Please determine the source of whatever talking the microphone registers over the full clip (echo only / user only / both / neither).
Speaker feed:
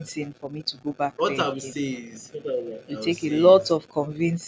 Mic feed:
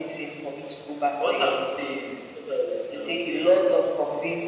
echo only